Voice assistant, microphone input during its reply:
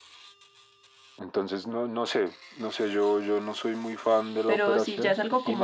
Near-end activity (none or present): present